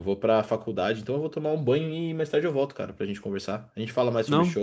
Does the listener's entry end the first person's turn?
No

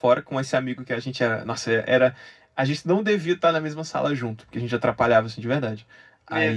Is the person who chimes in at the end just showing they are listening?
Yes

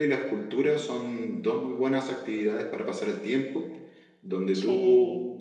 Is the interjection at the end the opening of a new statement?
No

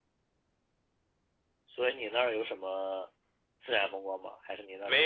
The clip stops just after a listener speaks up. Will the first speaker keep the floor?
No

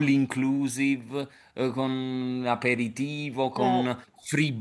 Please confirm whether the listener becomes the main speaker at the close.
No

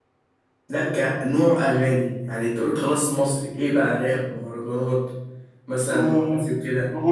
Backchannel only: No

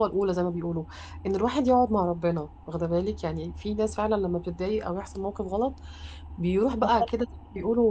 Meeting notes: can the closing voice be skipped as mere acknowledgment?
Yes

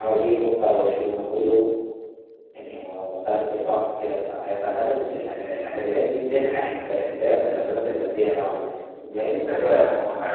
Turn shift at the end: Yes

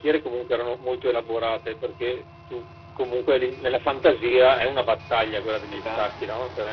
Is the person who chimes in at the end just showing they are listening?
Yes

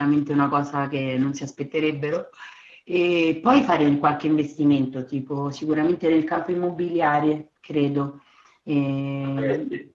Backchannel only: No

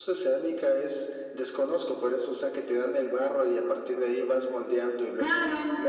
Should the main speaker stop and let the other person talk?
Yes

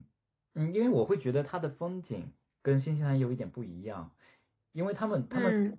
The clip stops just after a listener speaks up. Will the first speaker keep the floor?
Yes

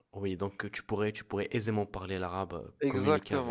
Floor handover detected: Yes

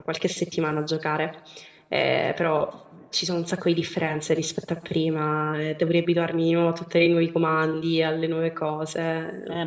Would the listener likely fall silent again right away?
No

